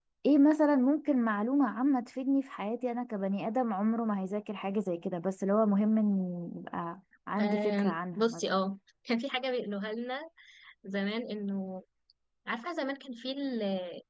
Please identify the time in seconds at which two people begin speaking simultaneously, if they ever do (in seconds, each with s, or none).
7.4 s